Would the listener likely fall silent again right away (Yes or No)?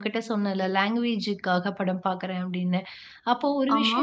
Yes